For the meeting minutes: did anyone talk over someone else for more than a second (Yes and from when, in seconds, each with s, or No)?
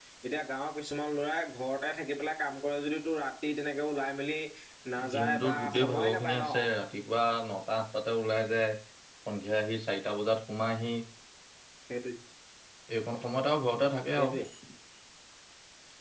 Yes, from 5.1 s